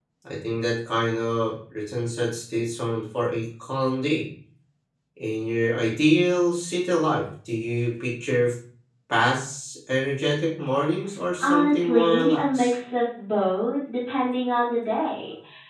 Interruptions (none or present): present